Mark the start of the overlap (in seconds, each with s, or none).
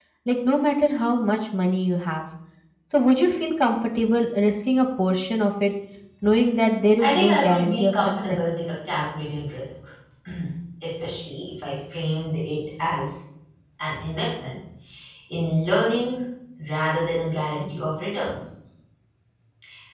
7.0 s